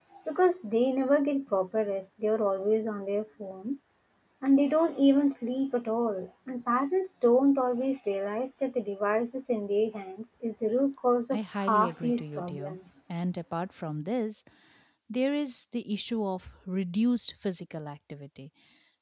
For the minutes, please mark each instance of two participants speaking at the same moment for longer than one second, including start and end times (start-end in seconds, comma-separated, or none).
11.3-12.8